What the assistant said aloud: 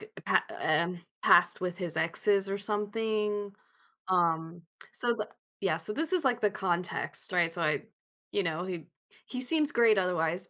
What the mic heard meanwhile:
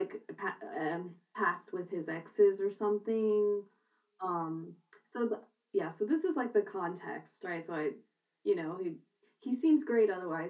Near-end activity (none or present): none